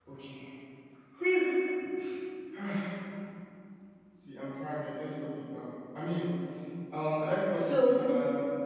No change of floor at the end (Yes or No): Yes